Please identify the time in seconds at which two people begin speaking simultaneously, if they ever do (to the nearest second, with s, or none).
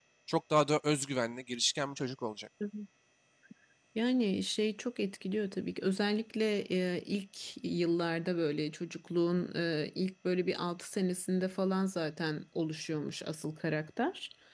none